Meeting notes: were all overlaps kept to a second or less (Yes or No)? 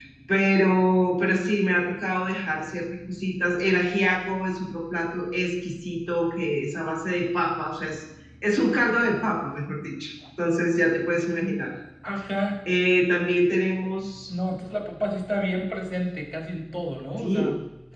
Yes